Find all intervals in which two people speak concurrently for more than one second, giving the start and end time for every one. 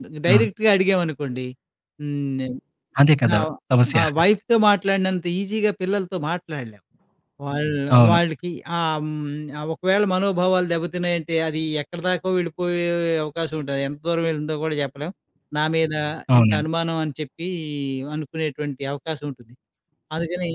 none

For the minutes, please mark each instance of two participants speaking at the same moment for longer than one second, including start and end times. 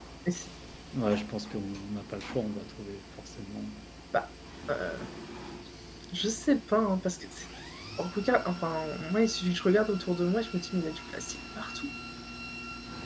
none

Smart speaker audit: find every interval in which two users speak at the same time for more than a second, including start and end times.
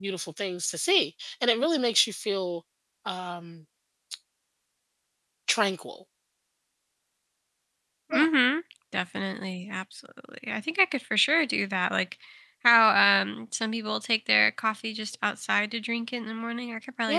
none

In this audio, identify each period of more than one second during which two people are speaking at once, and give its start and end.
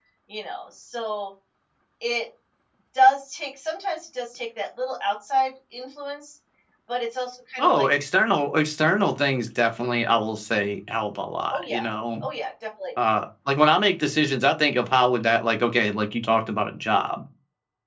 none

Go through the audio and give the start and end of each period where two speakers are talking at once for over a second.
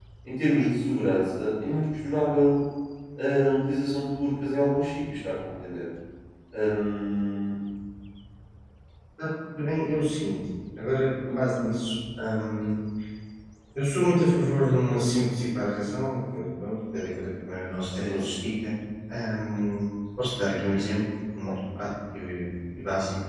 none

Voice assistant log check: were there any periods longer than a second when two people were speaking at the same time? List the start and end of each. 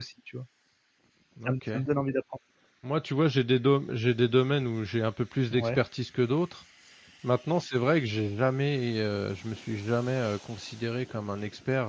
none

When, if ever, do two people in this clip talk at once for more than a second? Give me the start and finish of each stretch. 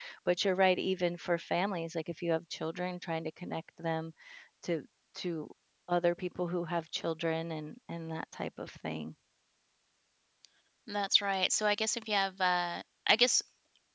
none

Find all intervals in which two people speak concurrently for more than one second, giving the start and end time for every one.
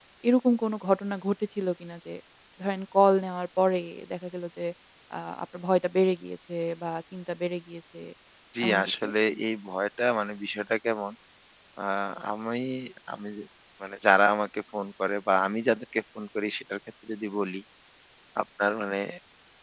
none

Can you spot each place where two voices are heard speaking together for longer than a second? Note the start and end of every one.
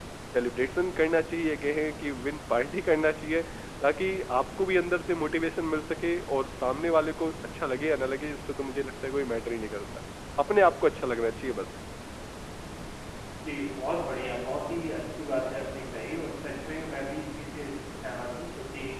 none

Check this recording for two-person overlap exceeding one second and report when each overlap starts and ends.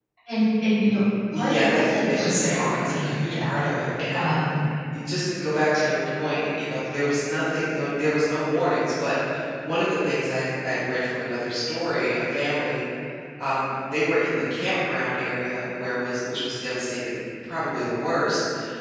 1.3-3.6

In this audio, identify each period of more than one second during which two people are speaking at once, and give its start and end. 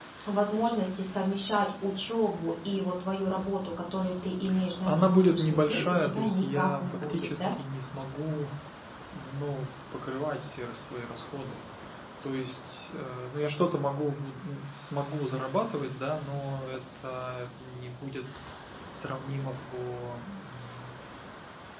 4.9-7.5

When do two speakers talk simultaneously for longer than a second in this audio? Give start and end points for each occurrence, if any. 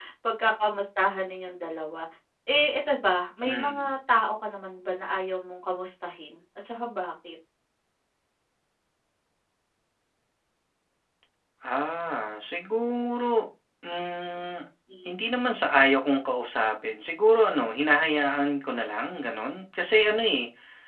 none

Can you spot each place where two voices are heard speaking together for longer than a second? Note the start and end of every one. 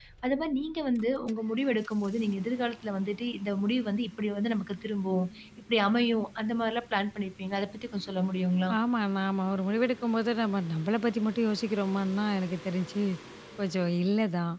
none

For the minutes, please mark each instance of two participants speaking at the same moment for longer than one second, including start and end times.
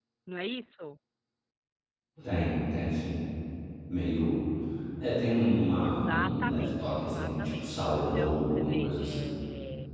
5.8-9.3

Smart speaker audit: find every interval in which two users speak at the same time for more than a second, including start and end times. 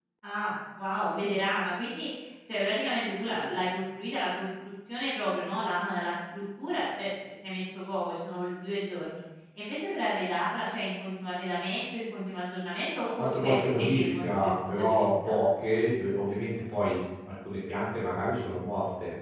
13.2-15.4

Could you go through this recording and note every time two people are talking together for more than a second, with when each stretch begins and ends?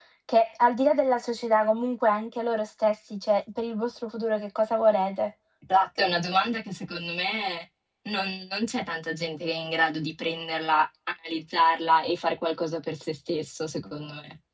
none

